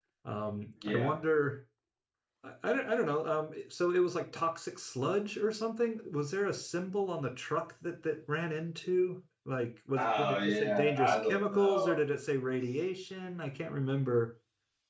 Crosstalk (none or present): present